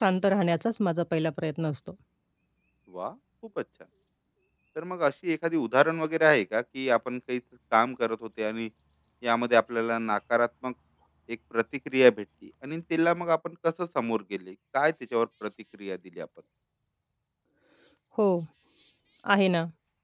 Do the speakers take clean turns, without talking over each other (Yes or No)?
Yes